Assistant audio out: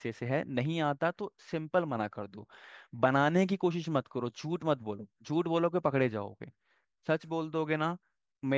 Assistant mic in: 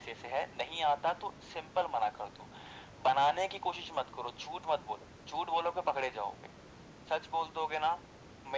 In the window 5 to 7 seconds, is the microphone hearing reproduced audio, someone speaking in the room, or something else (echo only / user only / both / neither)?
echo only